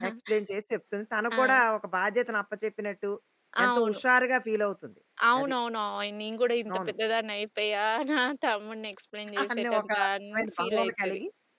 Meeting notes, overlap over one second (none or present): present